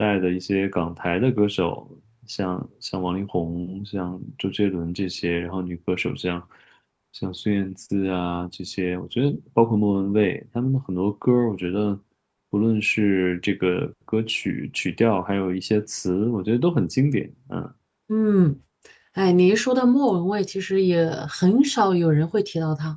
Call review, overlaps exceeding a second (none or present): none